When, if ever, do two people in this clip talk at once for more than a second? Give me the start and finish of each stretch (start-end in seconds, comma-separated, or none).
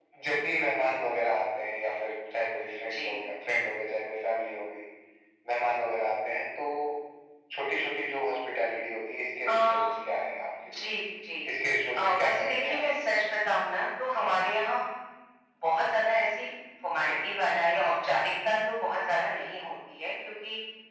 11.9-13.2